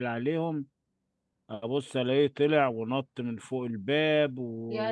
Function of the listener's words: listening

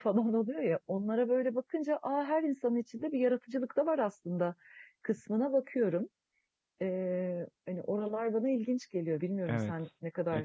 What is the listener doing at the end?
taking over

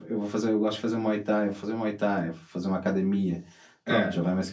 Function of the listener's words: listening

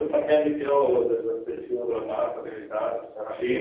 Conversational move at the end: taking over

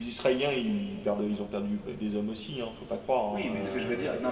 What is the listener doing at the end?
taking over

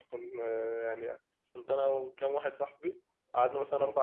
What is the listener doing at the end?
listening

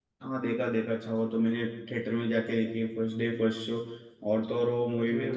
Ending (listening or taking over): listening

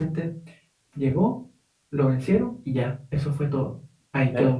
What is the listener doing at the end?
taking over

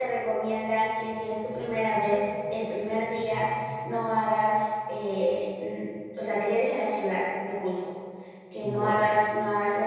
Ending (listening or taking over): listening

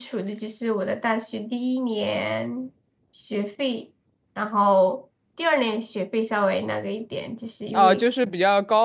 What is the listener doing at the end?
taking over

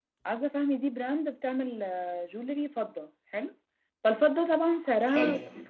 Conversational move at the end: listening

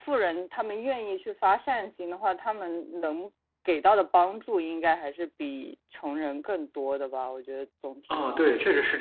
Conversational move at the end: taking over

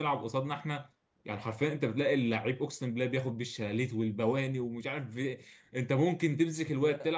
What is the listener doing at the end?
listening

